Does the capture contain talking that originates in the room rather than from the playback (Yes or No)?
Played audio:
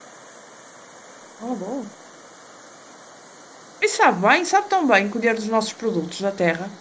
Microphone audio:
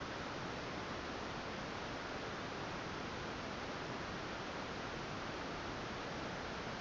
No